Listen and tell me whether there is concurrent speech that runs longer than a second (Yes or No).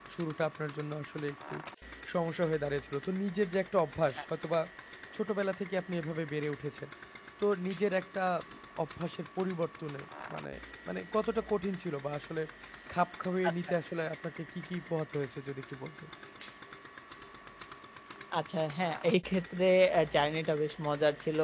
No